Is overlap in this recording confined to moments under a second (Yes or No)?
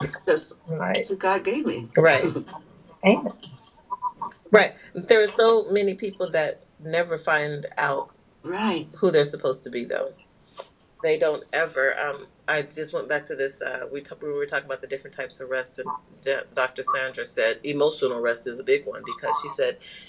Yes